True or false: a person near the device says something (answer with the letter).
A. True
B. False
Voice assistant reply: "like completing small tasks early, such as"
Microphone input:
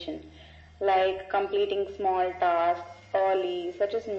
B